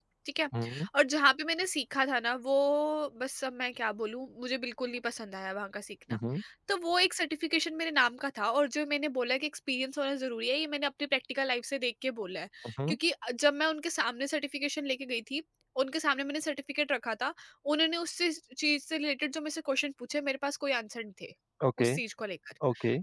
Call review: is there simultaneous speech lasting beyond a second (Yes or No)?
No